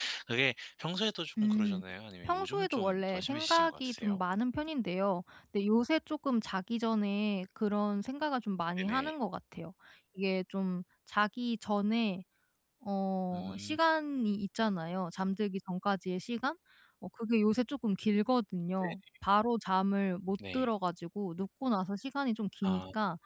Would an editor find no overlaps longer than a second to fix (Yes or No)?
No